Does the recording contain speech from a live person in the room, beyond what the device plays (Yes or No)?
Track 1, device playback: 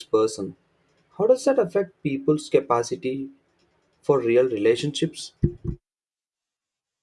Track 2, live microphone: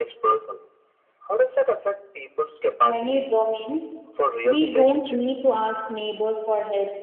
Yes